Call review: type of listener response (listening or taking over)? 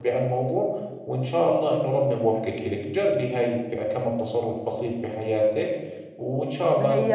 taking over